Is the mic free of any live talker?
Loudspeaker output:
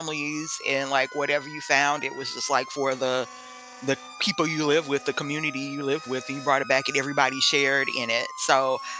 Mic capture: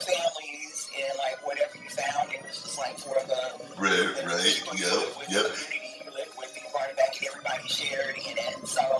No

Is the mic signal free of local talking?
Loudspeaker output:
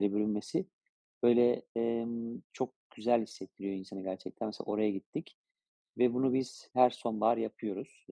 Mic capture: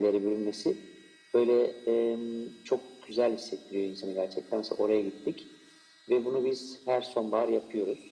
Yes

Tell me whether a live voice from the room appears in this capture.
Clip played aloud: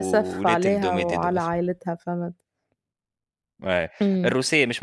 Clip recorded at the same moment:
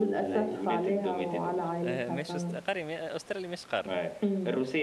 Yes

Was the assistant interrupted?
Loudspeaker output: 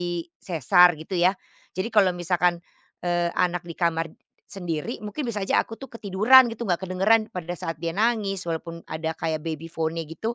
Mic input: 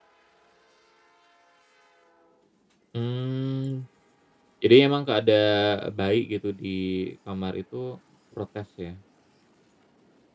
Yes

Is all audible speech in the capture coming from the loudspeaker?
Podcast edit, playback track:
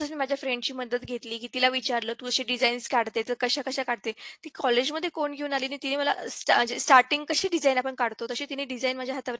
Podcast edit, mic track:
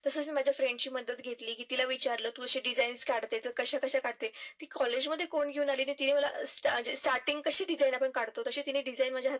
Yes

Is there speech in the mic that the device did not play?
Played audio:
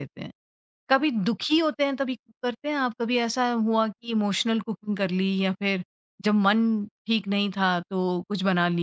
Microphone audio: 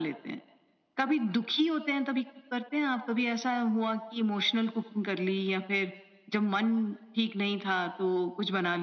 No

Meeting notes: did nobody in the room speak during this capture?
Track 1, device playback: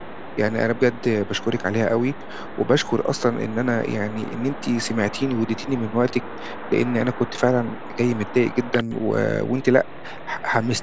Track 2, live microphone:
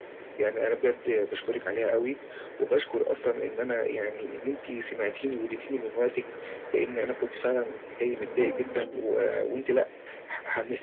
No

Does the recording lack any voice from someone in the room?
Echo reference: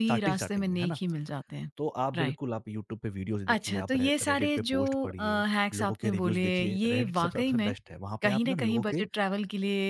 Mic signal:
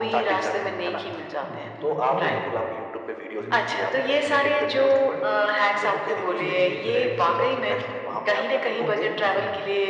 No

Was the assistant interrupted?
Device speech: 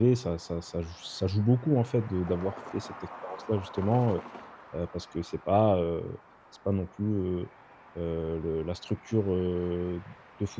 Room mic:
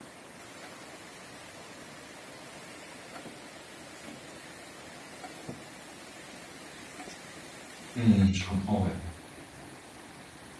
Yes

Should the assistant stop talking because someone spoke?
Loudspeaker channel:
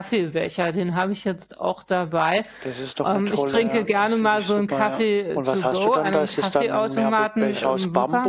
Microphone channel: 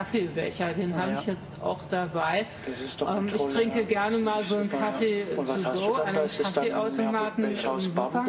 Yes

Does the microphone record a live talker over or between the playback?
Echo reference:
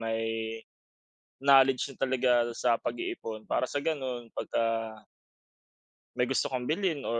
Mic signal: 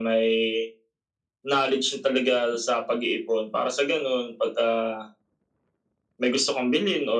No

